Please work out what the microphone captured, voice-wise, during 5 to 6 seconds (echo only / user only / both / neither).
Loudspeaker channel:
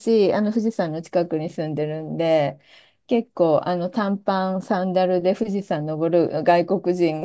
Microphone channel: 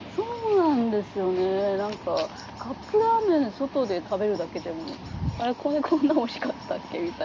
user only